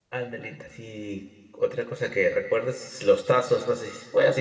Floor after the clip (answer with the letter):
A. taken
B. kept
B